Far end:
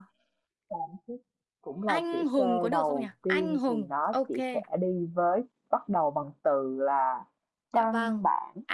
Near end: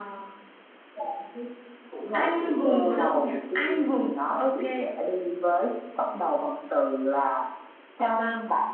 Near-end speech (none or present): none